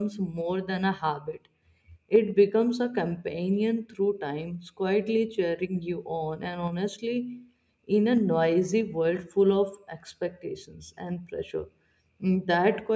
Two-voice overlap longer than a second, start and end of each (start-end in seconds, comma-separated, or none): none